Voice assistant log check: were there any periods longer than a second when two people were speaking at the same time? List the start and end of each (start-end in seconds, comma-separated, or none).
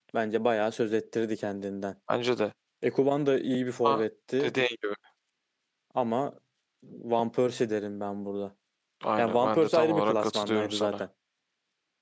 9.2-11.0